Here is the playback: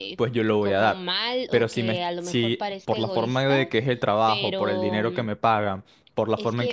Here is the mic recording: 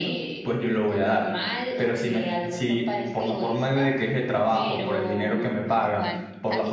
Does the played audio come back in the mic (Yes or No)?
Yes